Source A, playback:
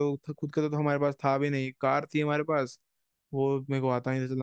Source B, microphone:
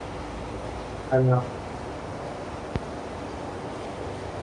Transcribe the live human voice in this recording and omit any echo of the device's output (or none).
अरे वाह।